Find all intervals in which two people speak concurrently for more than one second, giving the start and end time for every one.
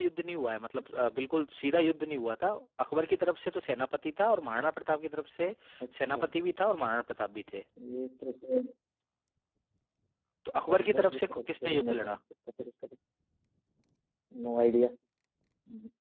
10.7-12.2

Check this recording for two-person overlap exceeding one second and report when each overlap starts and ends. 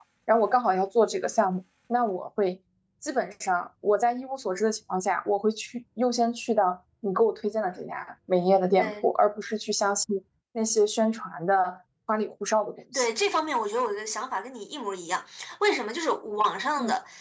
none

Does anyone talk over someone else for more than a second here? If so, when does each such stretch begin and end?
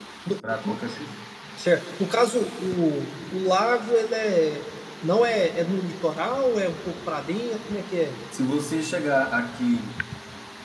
none

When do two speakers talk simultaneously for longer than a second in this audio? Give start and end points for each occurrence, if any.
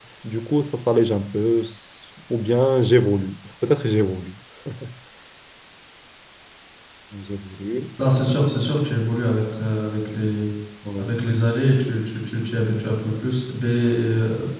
none

